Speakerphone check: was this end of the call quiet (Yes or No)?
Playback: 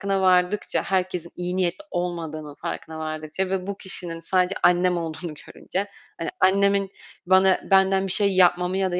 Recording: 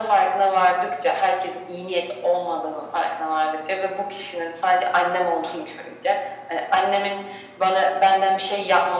Yes